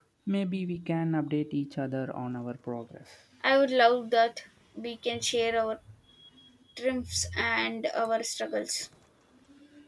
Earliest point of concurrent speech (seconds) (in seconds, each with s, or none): none